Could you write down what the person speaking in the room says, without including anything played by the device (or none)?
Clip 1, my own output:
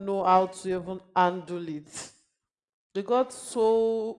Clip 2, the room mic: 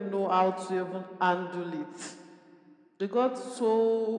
none